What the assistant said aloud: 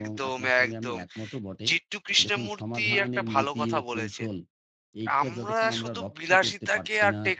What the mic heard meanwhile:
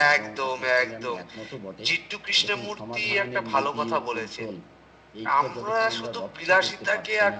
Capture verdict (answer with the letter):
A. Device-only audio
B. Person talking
A